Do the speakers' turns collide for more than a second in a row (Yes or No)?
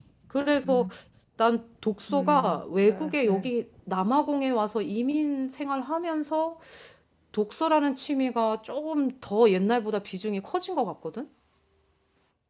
Yes